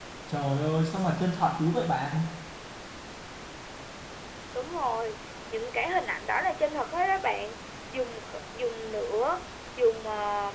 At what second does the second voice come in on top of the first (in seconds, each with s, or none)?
none